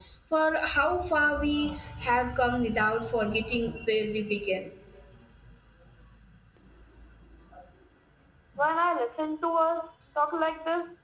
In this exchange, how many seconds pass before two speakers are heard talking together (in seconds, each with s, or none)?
none